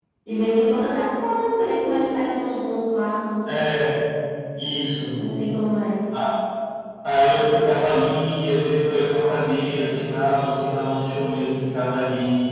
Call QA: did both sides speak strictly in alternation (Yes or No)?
Yes